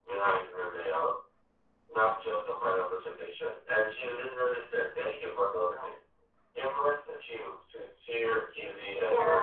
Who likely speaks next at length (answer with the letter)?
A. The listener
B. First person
A